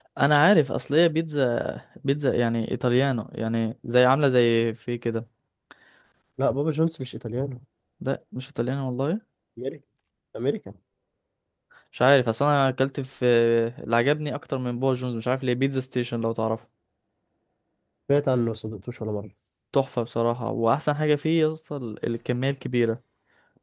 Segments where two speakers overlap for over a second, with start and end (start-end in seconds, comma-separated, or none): none